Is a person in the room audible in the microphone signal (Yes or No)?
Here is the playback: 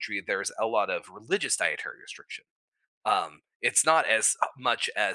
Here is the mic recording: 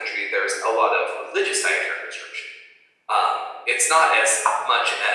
No